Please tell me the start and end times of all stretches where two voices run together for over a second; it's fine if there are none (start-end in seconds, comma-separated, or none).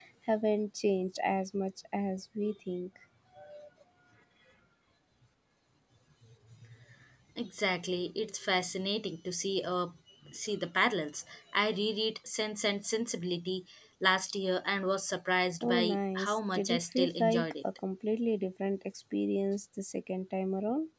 15.6-17.5